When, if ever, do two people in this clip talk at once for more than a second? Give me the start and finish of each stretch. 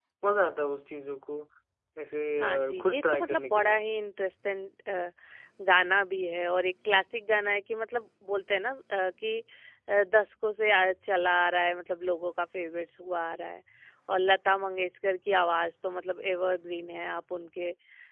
2.4-3.8

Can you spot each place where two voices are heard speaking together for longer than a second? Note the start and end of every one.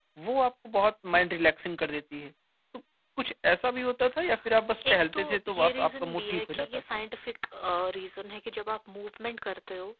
4.9-7.0

